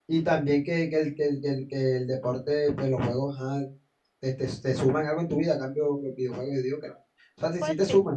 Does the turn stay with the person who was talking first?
Yes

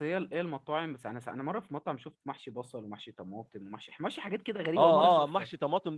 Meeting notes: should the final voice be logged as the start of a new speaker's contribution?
Yes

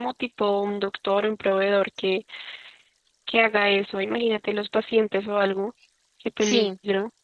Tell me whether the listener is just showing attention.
No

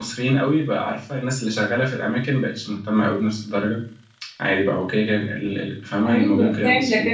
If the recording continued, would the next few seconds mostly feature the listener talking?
Yes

